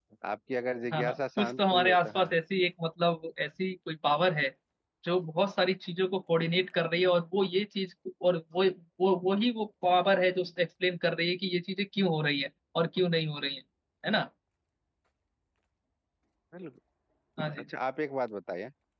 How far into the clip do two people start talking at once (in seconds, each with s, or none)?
0.9 s